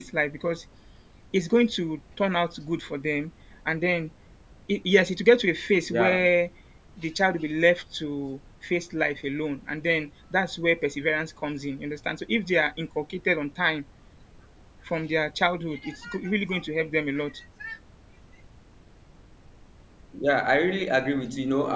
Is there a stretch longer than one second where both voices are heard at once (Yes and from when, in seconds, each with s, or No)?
No